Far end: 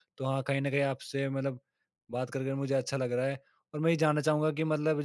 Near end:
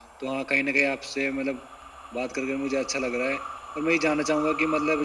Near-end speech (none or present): none